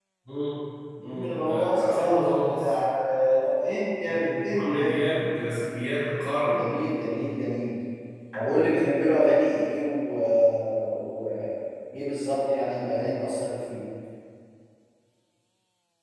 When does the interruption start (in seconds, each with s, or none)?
1.1 s